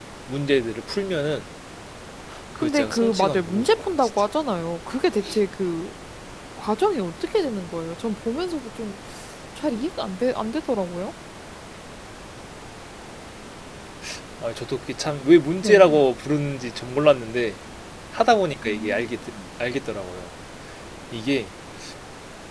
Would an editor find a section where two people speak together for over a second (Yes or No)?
Yes